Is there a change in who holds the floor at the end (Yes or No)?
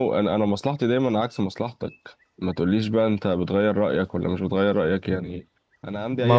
Yes